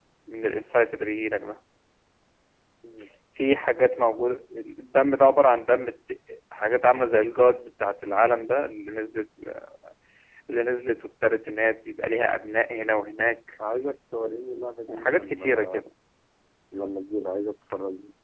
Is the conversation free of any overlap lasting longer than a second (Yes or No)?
No